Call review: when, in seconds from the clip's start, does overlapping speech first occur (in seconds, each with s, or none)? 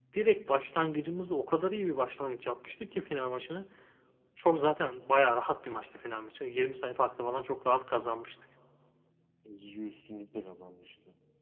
none